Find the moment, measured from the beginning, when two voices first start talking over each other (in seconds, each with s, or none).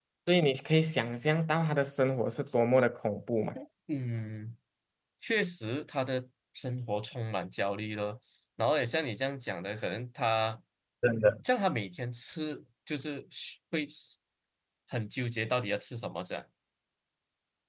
none